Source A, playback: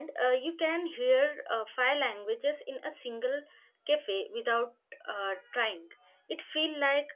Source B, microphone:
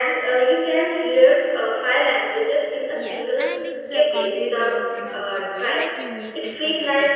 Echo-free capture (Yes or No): No